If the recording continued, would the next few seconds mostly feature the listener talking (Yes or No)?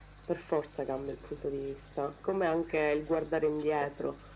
No